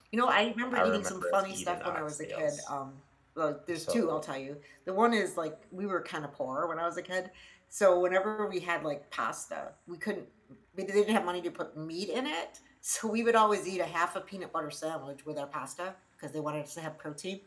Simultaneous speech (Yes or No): Yes